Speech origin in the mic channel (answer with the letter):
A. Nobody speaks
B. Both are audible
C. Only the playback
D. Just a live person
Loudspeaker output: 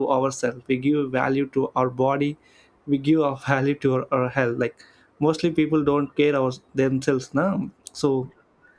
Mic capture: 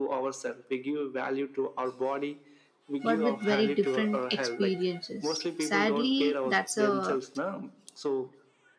B